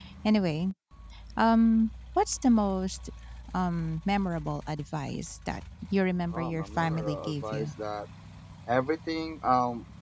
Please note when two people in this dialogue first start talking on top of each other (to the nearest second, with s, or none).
6 s